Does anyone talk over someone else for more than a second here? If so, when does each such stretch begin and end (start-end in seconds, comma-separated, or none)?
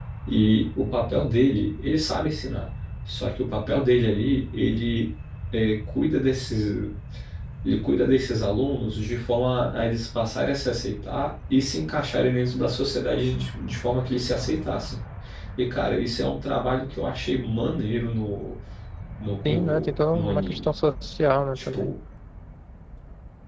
19.4-20.7